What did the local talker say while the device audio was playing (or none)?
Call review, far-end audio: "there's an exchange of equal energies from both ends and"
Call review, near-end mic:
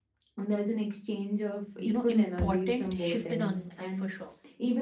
you know, important shifted on inside for sure.